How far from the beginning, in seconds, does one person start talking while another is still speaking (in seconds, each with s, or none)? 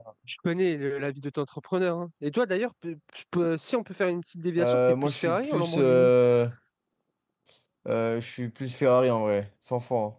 4.6 s